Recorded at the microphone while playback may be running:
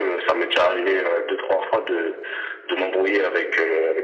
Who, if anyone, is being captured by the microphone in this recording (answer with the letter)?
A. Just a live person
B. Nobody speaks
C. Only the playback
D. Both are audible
C